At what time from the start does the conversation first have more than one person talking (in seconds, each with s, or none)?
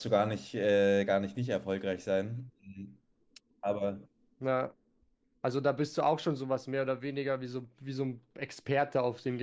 none